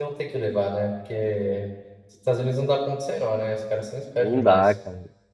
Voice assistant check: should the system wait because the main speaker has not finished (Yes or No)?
No